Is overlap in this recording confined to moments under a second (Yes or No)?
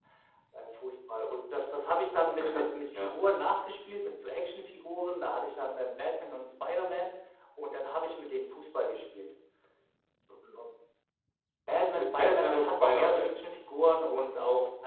No